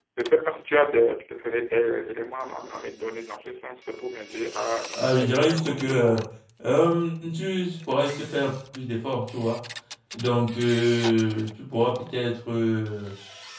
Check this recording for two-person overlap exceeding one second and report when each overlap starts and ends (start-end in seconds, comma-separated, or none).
5.0-6.2